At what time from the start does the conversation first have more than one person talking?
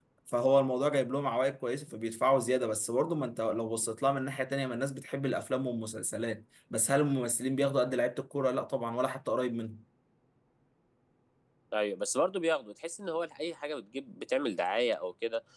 none

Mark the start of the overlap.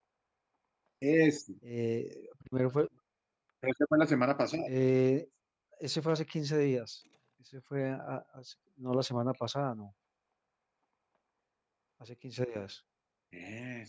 none

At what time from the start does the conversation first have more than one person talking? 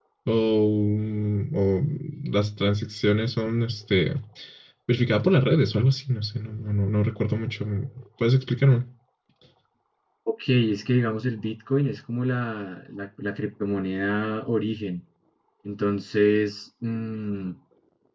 none

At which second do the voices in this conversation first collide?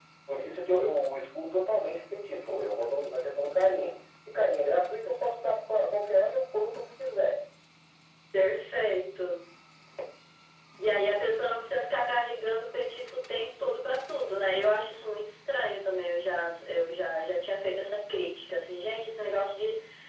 none

